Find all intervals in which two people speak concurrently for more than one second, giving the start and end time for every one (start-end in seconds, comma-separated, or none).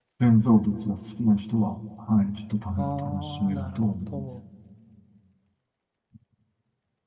2.8-4.3